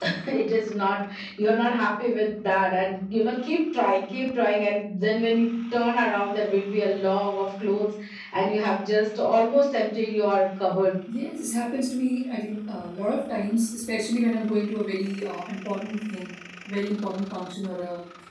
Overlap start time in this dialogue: none

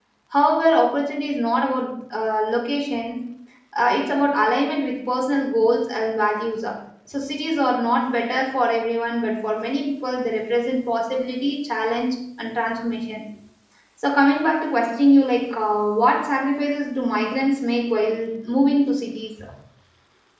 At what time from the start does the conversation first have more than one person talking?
none

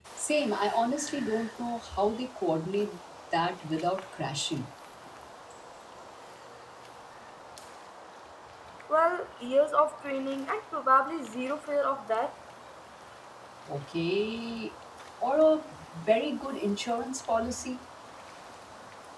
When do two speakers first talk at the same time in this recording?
none

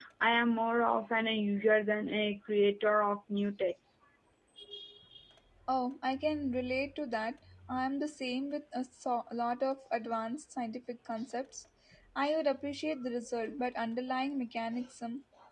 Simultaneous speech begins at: none

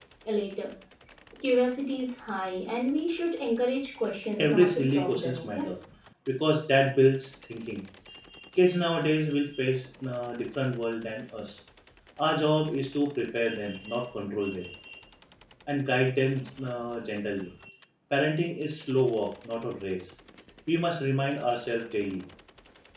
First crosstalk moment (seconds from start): 4.4 s

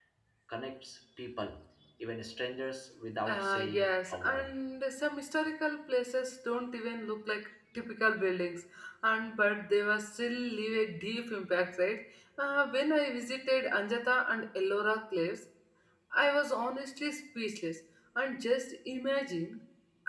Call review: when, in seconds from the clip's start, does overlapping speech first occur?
3.3 s

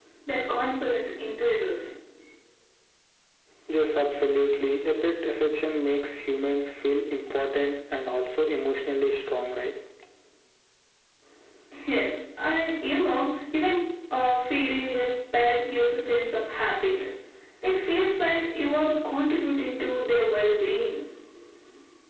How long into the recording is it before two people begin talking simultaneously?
none

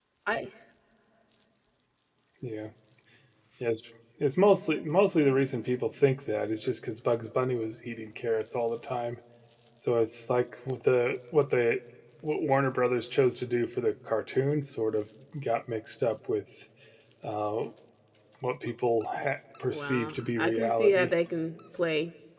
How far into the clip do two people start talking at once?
19.7 s

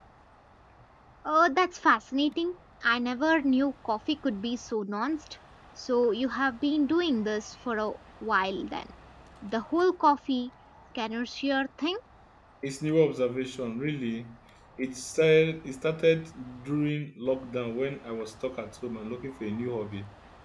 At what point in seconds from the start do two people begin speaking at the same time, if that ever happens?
none

